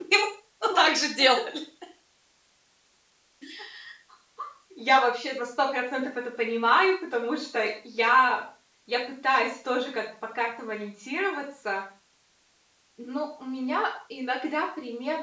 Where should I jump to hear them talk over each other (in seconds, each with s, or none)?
none